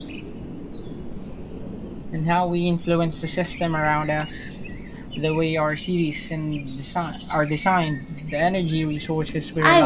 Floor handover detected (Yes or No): Yes